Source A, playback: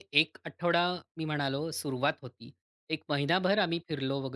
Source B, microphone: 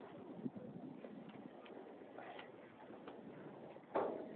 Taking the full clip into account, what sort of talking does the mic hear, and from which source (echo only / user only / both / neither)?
neither